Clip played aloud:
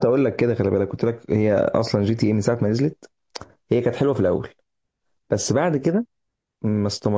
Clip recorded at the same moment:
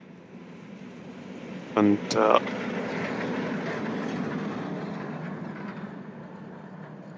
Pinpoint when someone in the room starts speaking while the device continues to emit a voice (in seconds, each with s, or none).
1.7 s